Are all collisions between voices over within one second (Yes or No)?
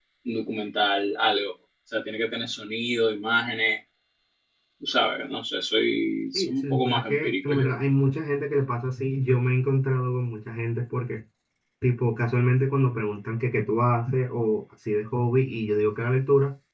No